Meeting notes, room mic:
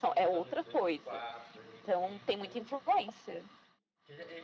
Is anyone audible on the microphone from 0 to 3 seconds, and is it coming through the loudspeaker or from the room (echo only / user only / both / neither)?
both